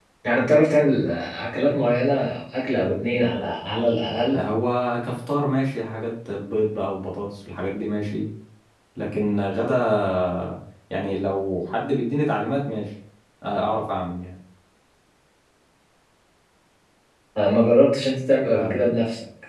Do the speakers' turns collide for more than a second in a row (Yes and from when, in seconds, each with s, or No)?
No